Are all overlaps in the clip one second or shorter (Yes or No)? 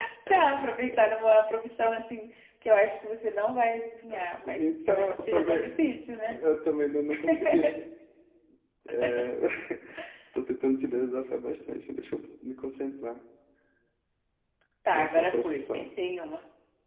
No